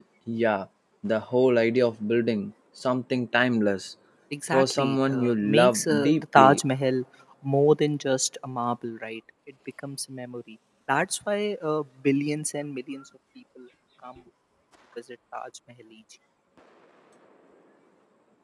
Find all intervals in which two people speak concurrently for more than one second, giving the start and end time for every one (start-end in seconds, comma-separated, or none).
4.5-6.6